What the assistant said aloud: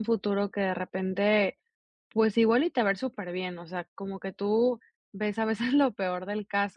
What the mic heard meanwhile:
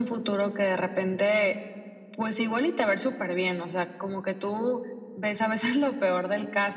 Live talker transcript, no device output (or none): none